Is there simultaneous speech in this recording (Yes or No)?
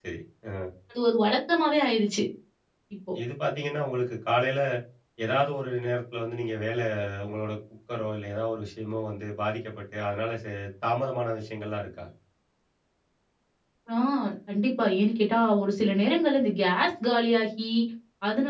No